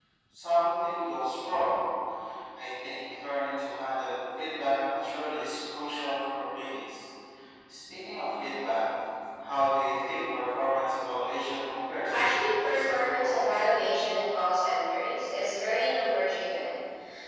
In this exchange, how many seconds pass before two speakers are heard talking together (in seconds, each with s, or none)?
12.1 s